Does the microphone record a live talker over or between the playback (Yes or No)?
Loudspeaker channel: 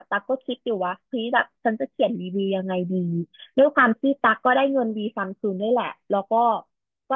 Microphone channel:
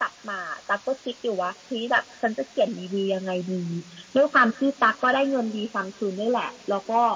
No